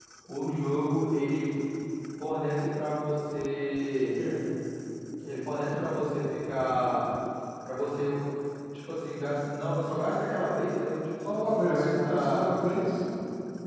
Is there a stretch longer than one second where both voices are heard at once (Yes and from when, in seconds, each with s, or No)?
Yes, from 11.2 s